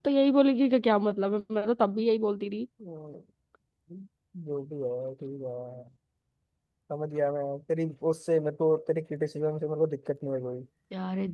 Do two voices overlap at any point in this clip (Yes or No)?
No